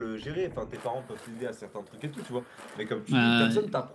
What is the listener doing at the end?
listening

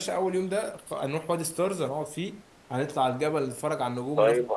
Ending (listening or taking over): taking over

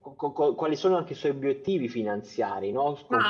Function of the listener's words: taking over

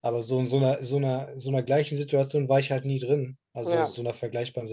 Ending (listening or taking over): listening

